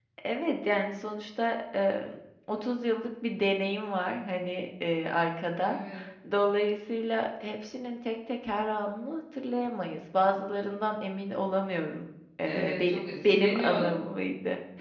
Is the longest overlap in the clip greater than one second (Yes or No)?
Yes